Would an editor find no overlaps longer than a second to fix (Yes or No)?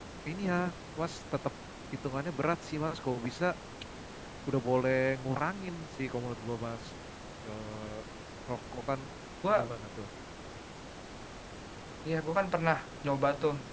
Yes